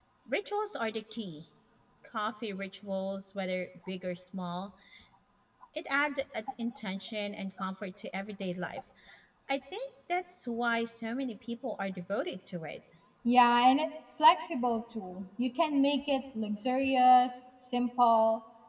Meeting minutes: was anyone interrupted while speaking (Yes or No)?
No